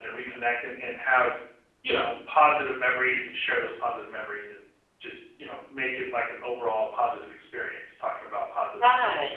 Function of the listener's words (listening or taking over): taking over